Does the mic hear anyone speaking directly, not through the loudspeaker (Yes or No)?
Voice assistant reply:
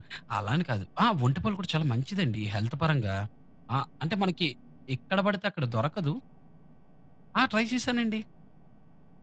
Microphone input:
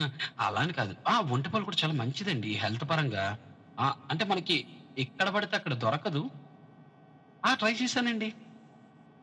No